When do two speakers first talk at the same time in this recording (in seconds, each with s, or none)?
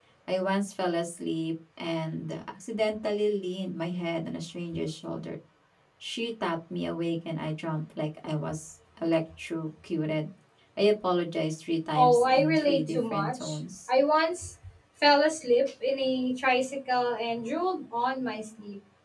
11.9 s